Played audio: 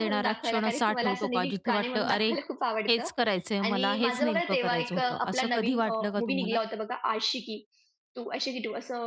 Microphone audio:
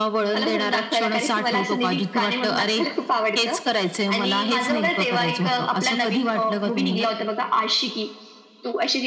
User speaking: No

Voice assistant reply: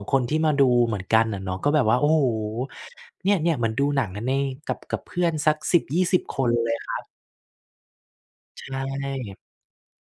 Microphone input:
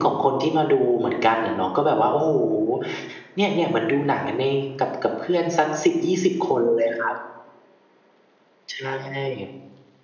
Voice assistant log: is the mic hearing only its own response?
Yes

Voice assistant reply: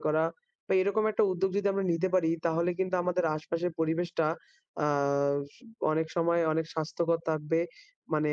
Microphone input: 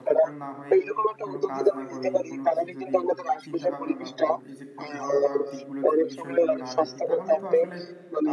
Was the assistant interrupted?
Yes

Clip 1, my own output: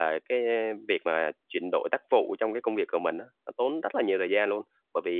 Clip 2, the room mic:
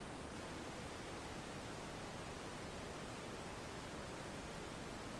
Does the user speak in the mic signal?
No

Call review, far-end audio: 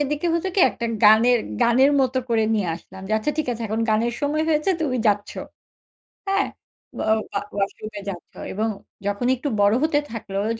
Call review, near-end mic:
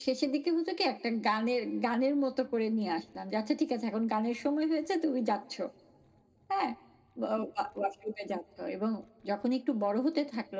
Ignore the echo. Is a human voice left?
No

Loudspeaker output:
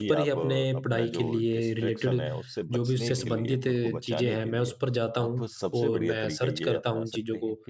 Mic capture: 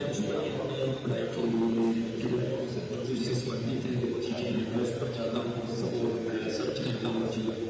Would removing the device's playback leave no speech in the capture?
Yes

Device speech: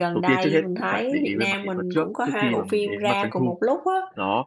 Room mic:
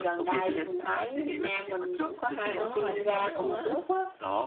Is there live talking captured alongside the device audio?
Yes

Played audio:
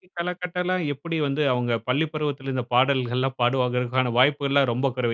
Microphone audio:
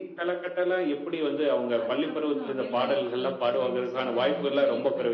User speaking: Yes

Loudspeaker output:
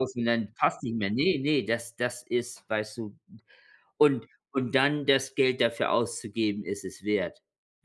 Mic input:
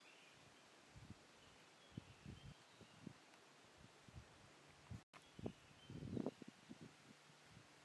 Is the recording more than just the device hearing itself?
No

